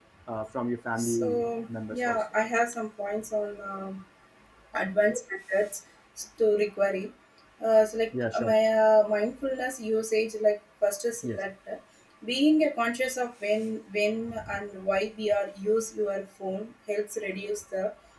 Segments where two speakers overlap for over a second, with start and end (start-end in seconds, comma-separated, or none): 1.0-2.2